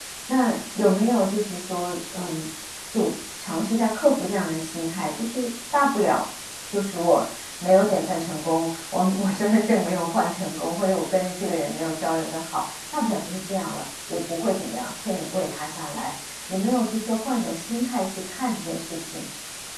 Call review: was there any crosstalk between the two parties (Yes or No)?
No